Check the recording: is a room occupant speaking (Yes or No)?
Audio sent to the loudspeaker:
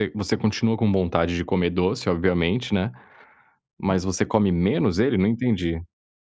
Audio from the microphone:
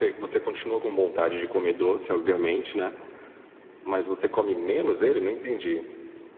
No